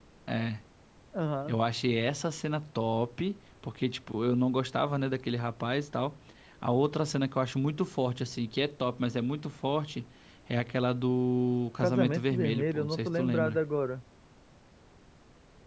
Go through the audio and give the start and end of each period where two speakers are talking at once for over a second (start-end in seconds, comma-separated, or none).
11.8-13.6